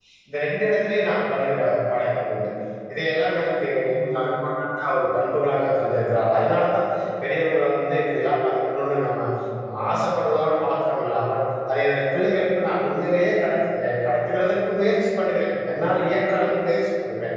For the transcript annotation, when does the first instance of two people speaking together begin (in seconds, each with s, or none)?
none